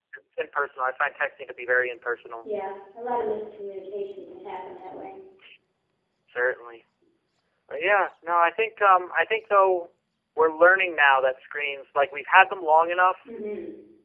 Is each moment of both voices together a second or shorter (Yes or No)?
Yes